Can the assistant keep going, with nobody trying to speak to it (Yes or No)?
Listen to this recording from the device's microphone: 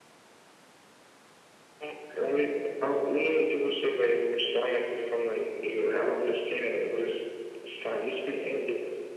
Yes